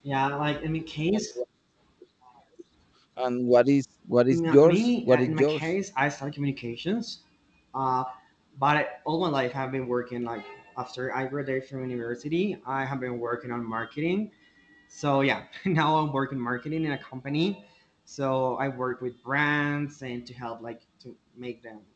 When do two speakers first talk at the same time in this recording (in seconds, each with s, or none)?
4.3 s